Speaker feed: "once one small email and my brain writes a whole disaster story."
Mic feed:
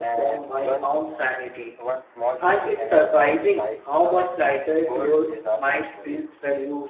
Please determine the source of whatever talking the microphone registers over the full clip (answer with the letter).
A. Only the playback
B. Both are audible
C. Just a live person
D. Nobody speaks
B